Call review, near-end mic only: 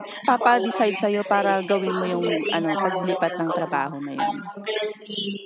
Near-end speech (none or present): present